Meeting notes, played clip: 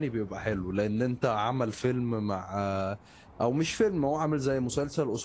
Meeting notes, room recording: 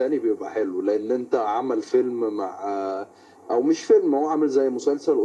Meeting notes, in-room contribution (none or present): none